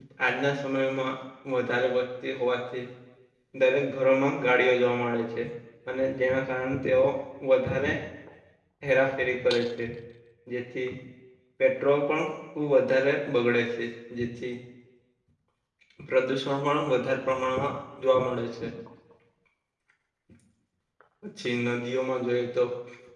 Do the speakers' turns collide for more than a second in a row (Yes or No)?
No